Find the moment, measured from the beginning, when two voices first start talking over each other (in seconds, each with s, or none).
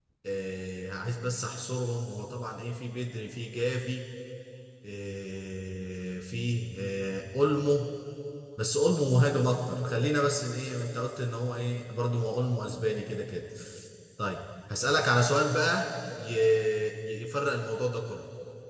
none